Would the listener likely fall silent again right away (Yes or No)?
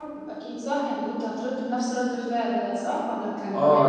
No